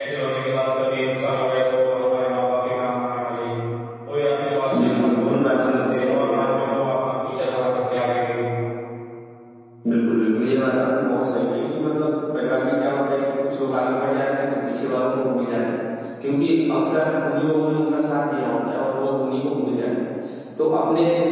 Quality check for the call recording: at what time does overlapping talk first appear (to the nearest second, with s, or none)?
5 s